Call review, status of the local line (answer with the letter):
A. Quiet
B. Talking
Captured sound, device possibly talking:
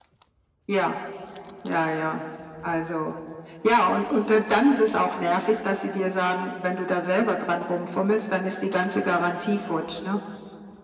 A